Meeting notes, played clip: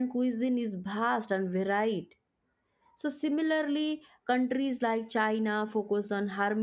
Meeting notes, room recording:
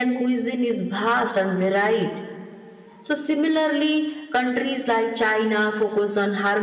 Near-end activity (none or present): none